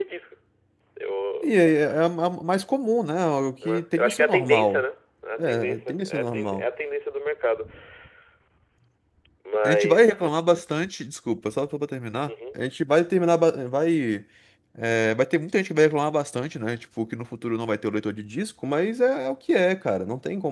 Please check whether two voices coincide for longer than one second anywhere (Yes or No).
Yes